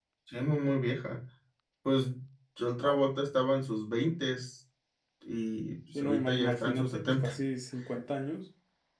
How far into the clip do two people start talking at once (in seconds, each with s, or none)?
6.0 s